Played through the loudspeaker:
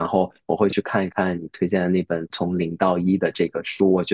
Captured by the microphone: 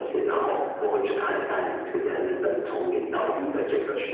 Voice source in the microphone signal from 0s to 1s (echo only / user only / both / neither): echo only